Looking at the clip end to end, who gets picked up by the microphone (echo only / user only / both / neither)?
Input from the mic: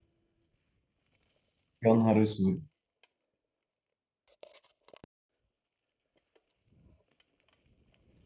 user only